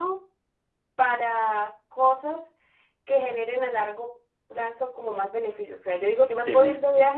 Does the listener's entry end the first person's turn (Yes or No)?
No